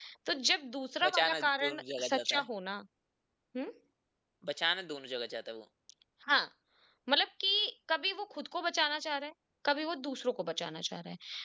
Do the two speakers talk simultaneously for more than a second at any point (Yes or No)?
Yes